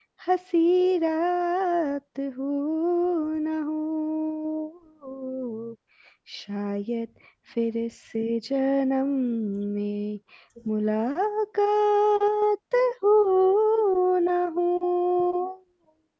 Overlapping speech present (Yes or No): No